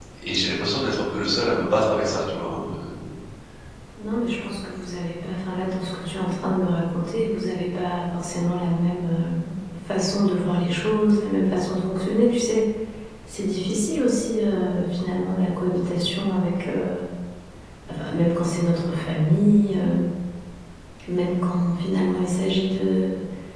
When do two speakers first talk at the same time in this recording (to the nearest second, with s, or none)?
none